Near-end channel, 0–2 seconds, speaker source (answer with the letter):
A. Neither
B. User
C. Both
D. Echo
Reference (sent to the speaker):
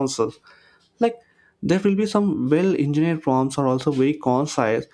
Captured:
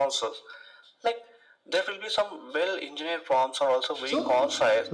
D